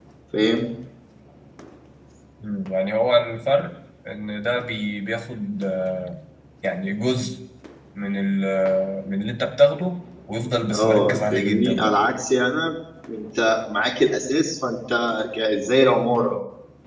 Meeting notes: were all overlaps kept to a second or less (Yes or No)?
No